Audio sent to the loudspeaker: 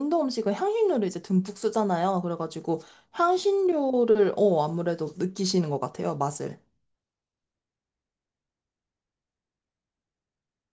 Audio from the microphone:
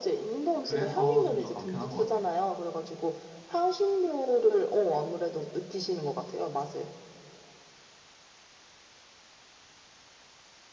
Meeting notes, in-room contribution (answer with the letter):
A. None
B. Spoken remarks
B